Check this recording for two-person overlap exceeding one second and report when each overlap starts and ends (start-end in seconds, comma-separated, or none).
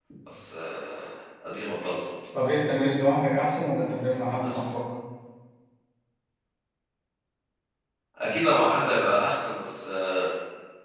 none